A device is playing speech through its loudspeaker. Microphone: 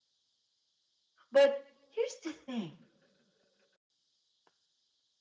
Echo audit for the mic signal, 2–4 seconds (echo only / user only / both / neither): user only